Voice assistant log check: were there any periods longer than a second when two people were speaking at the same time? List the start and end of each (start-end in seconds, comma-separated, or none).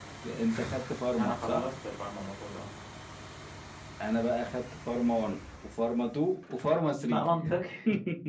none